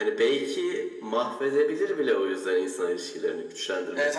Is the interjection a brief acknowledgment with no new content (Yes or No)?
No